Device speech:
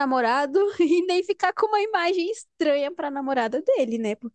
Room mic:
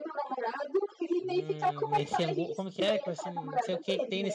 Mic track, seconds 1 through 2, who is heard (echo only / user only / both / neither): both